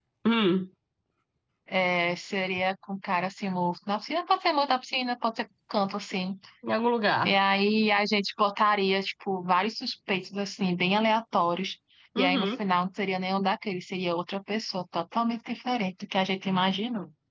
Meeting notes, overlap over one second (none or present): none